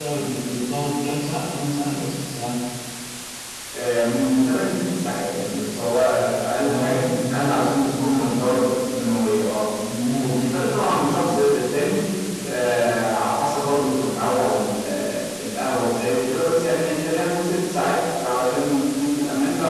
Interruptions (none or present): present